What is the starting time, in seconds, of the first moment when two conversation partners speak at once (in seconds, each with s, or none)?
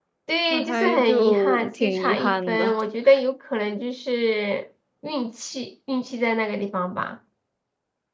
0.5 s